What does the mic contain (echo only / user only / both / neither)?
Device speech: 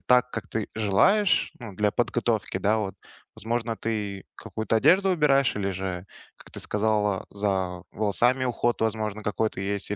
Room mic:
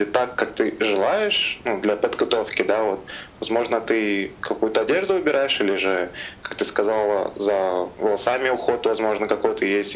echo only